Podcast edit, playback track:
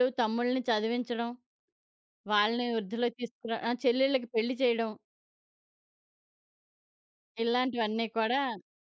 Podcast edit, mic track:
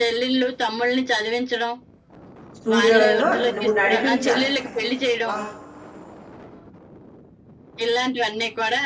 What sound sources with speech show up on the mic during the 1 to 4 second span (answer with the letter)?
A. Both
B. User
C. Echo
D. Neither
A